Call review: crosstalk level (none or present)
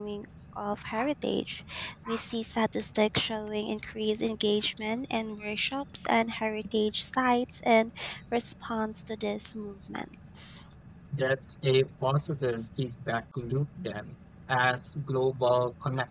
none